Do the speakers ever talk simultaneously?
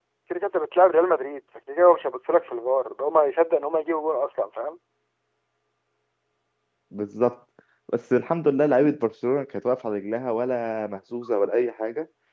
No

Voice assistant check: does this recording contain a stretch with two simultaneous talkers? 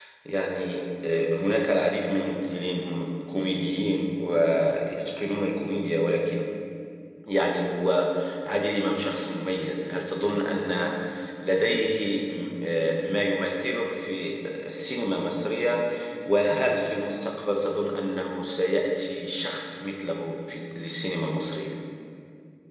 No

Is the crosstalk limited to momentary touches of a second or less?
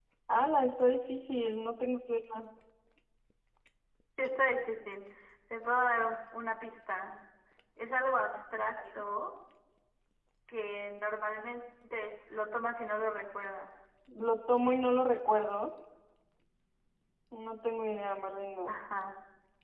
Yes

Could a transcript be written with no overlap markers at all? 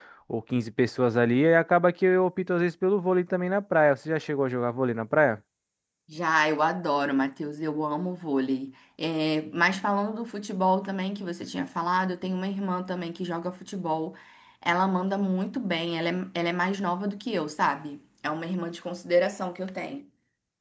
Yes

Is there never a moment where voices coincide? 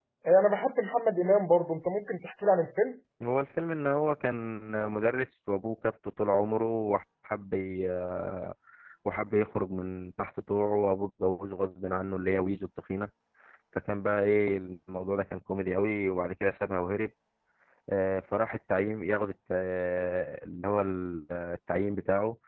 Yes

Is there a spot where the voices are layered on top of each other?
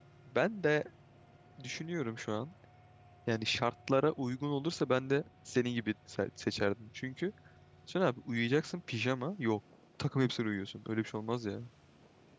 No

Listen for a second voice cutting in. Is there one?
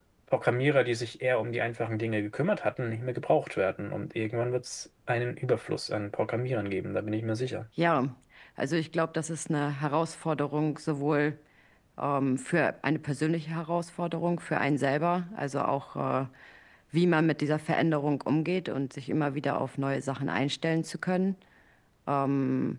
No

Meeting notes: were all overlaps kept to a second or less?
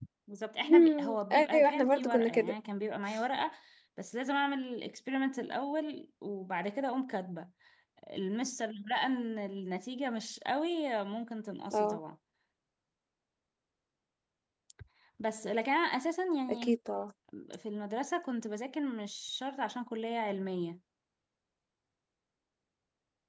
No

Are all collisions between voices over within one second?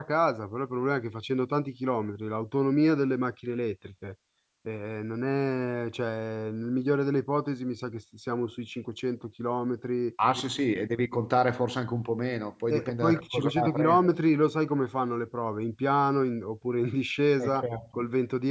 No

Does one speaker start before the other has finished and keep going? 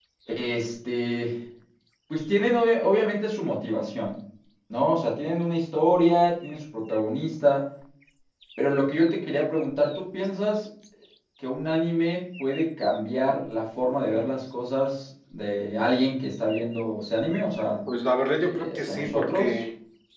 Yes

